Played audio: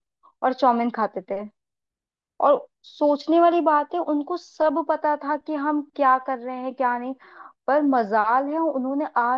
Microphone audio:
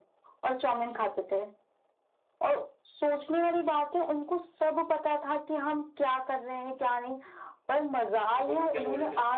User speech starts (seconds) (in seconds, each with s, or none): 8.3 s